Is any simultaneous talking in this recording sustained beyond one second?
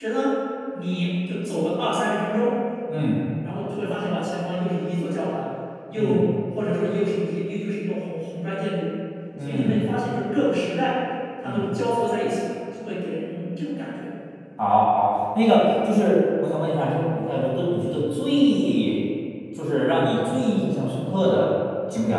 No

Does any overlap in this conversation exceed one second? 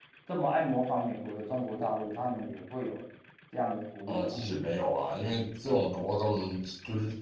No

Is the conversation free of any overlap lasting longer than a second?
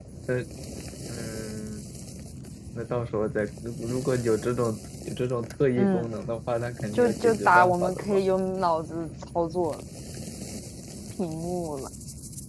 No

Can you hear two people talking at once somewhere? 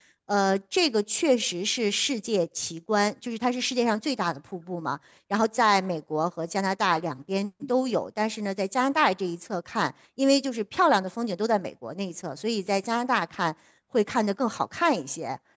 No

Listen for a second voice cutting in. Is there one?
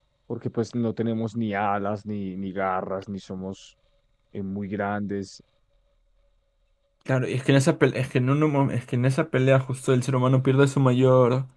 No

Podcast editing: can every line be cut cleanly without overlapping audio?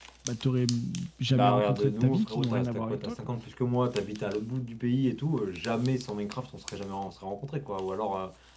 No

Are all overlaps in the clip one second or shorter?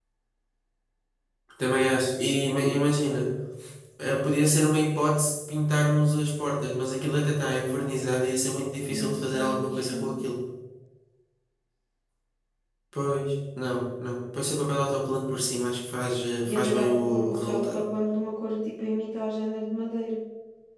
No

